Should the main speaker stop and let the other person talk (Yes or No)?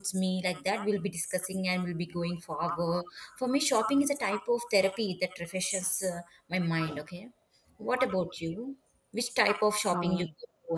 No